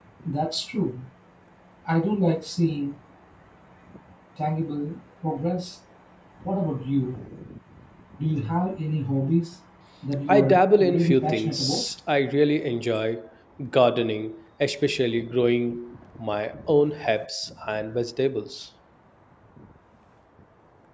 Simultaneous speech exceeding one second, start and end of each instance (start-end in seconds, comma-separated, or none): 10.3-11.8